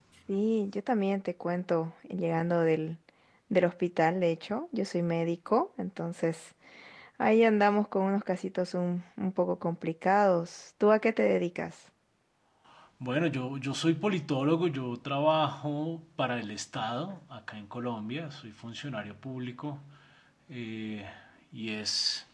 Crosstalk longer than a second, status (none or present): none